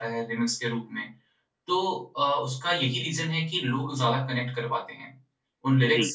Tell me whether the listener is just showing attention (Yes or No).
Yes